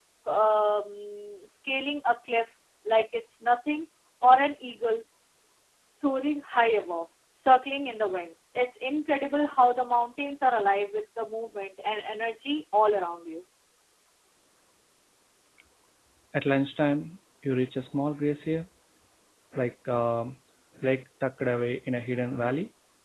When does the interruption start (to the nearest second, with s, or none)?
none